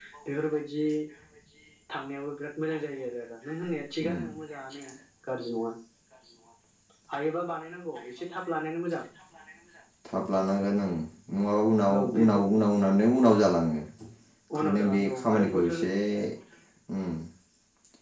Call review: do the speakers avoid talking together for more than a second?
No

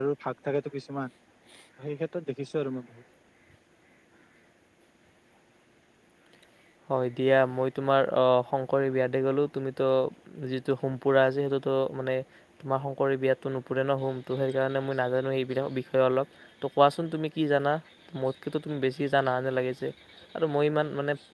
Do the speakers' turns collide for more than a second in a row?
No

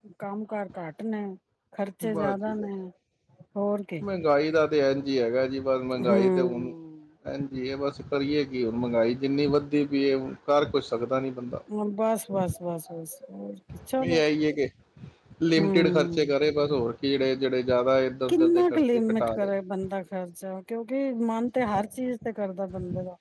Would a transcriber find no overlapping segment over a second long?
No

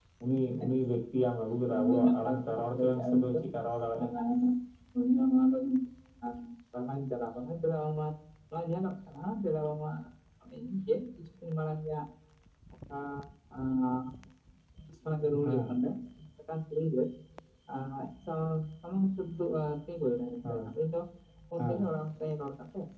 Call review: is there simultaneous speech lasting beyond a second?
Yes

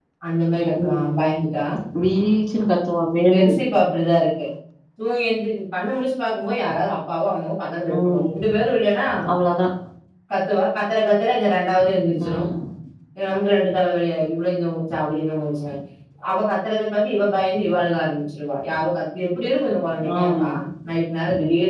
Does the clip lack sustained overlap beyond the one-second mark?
Yes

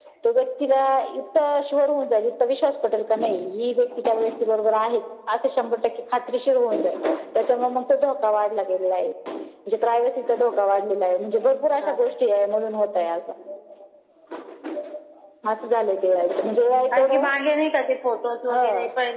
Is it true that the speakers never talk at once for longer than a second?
Yes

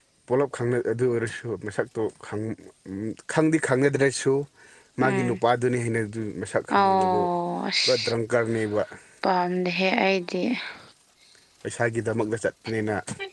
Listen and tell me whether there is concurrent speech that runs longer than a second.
No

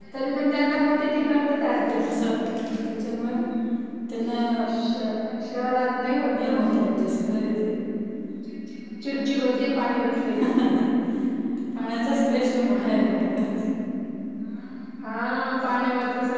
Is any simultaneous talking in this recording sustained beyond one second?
No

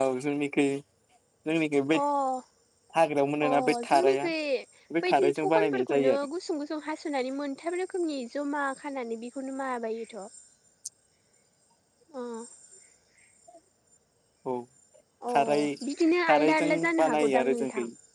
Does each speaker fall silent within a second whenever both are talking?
No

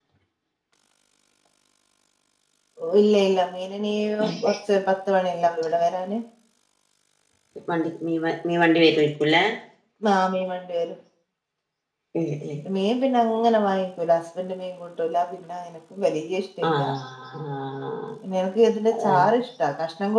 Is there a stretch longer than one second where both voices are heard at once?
No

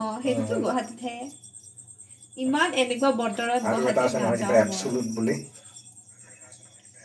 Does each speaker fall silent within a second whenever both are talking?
No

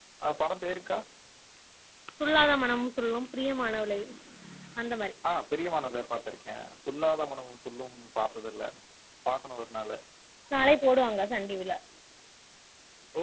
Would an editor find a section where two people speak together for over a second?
No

